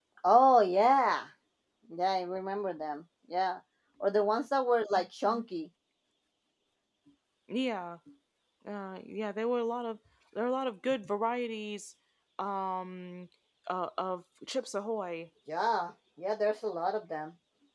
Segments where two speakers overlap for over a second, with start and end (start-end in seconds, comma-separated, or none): none